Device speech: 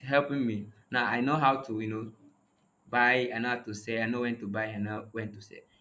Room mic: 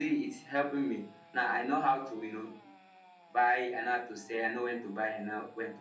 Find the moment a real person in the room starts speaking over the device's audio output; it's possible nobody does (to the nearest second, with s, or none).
none